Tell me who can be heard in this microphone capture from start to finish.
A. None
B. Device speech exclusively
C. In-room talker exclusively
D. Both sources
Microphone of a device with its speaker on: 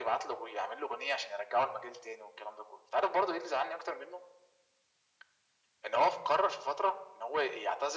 B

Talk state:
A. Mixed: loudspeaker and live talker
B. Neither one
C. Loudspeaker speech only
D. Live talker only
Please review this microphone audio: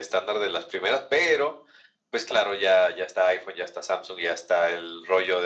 C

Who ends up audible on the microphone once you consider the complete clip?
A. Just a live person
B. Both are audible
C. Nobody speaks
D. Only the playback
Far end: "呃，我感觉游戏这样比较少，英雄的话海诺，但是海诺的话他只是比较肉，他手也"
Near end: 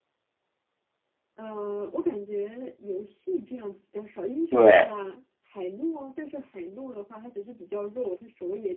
B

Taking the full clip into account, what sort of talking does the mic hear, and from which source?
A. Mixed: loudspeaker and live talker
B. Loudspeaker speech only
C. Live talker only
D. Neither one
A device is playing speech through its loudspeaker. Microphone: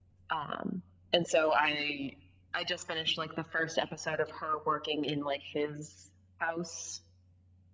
B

